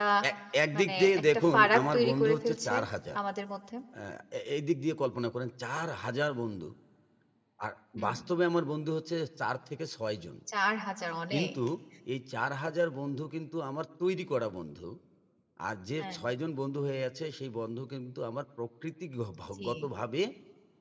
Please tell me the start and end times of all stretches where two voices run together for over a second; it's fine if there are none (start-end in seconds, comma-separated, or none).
0.8-2.7